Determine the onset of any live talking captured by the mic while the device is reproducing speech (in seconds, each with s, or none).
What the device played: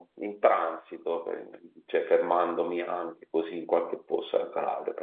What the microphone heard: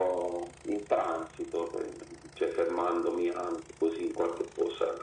none